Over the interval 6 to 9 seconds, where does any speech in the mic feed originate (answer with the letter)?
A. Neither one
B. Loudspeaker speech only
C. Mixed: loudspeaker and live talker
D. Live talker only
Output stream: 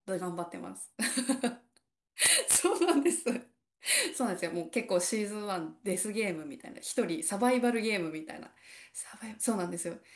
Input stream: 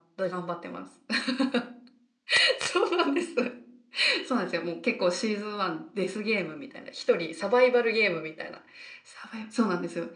B